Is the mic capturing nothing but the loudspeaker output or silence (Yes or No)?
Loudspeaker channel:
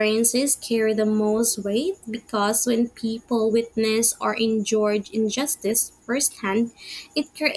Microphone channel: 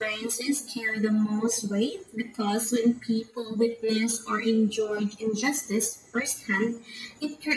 Yes